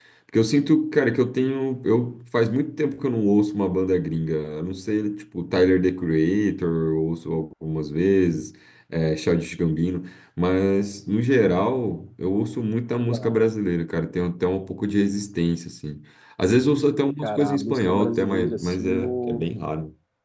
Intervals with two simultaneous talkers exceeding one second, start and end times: 17.2-19.5

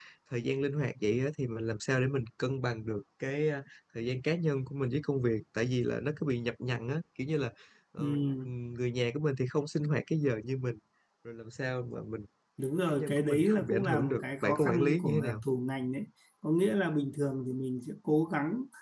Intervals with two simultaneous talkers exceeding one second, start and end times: 12.9-15.4

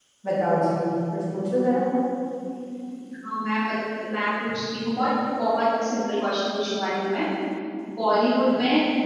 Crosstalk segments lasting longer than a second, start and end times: none

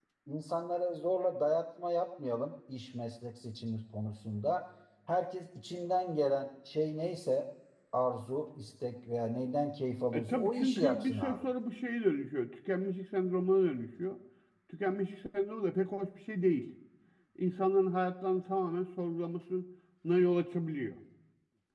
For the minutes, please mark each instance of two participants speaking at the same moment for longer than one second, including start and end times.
10.1-11.5

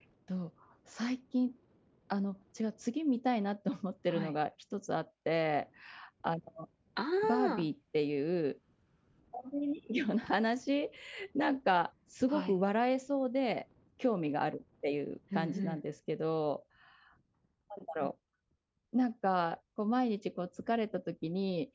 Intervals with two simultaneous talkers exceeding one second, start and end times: none

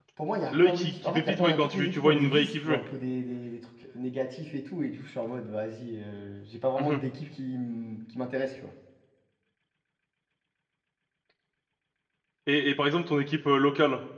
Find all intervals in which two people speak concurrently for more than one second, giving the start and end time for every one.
0.5-2.8

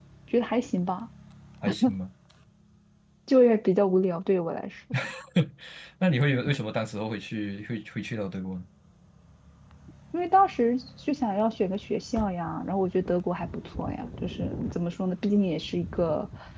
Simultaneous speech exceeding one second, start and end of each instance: none

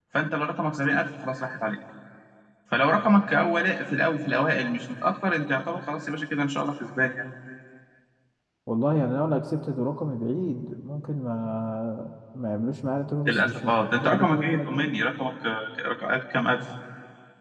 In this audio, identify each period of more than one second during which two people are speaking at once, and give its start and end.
13.2-14.9

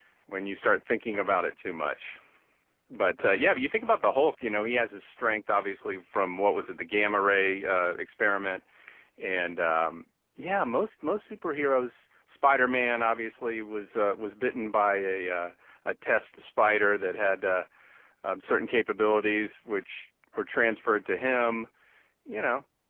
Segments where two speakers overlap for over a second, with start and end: none

